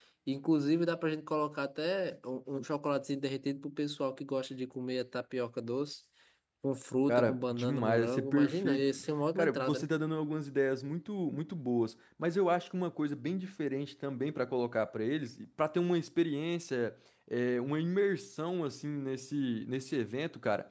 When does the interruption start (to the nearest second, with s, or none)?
7 s